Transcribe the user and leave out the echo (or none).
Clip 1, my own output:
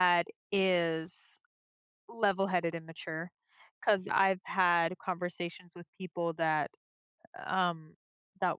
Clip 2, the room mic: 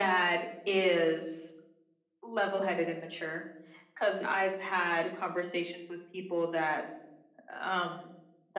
none